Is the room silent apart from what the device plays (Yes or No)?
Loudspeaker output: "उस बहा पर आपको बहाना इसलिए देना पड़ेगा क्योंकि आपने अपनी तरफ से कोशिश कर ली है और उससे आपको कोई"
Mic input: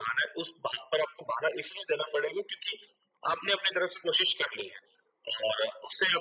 Yes